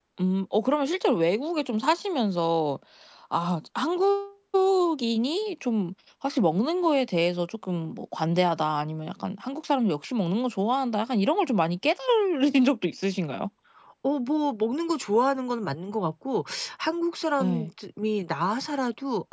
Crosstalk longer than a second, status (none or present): none